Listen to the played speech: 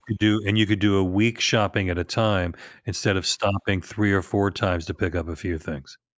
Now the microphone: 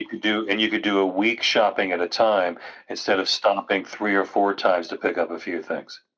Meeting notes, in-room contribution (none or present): none